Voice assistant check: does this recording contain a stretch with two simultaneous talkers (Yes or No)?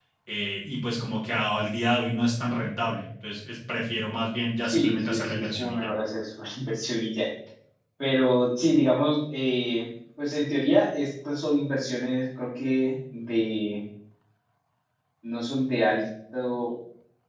Yes